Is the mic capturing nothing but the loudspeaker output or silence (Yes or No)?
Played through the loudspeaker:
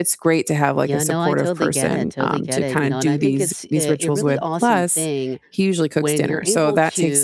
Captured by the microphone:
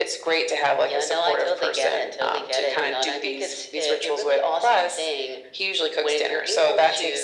Yes